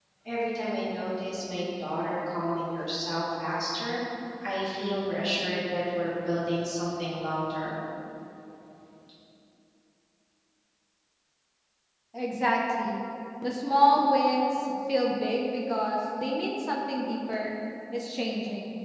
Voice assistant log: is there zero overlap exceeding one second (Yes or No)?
Yes